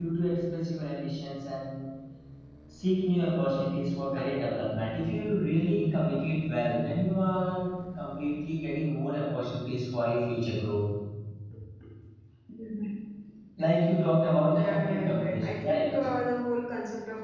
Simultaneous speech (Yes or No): Yes